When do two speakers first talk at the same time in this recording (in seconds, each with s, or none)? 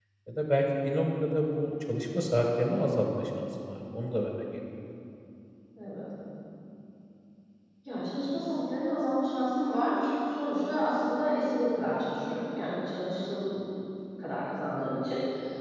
none